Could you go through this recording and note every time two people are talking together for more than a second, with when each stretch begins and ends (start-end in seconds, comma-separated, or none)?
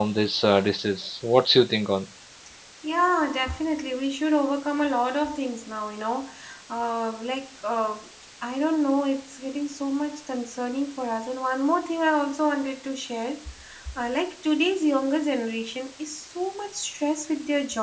none